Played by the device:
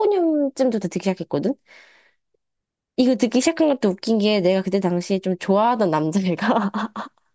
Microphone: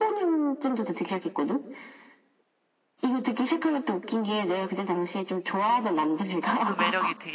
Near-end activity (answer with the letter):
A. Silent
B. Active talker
B